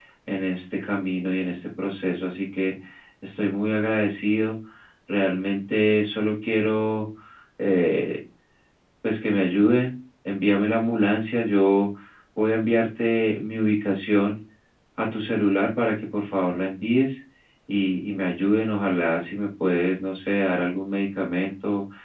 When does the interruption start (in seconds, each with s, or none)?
none